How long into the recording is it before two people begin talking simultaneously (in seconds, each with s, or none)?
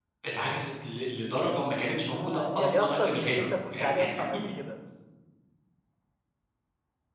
2.1 s